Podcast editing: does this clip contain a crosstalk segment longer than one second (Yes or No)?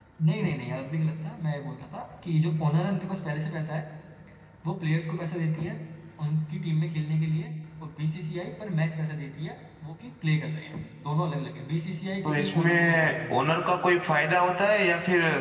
Yes